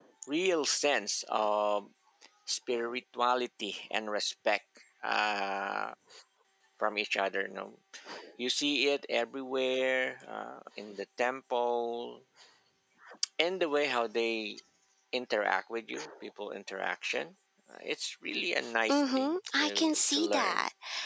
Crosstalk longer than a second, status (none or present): present